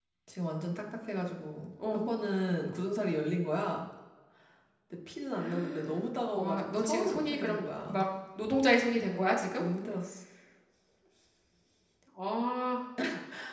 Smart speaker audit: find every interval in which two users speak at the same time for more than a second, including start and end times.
6.3-8.0

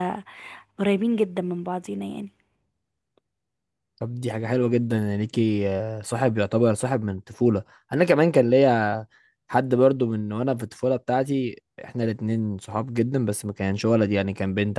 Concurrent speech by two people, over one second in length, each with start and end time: none

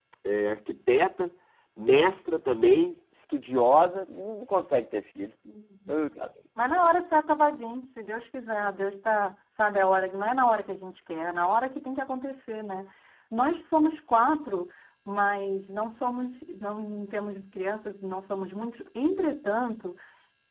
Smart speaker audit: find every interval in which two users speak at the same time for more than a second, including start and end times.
none

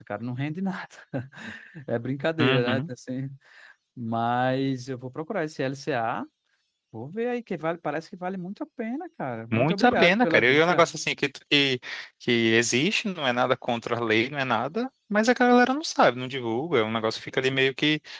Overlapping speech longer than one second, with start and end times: 9.5-10.8

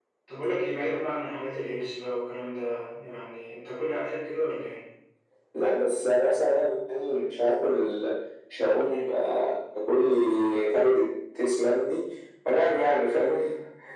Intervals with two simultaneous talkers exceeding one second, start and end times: none

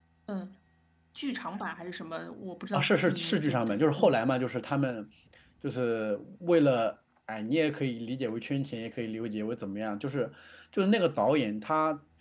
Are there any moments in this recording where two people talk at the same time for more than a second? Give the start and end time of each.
2.7-4.2

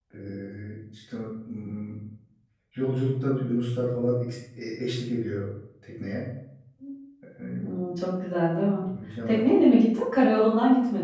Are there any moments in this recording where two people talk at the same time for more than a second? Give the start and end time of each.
none

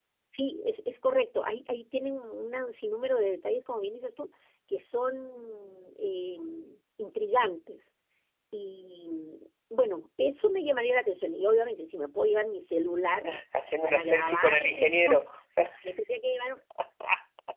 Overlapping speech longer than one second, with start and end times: 13.8-15.3

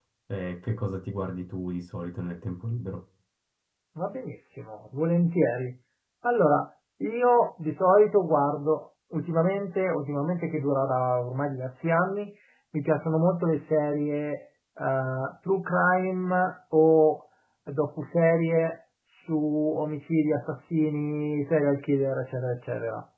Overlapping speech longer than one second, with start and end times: none

